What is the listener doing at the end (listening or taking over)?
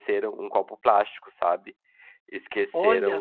listening